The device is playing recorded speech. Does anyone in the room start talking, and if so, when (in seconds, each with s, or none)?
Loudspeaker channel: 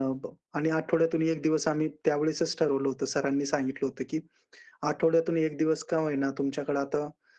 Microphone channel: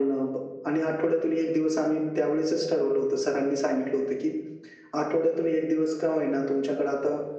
none